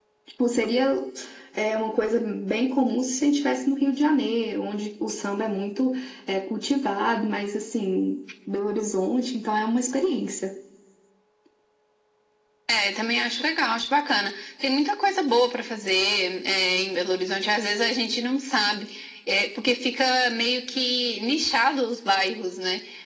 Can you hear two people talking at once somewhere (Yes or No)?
No